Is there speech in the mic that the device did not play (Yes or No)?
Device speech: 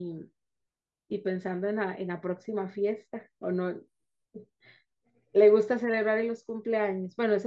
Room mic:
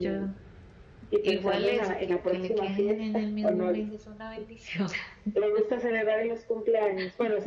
Yes